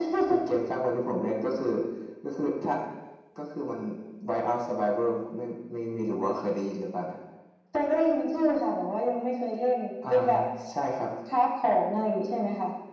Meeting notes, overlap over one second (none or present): none